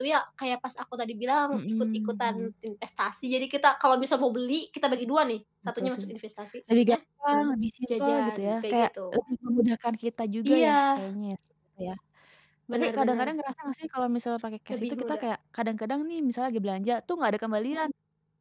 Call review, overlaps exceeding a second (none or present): present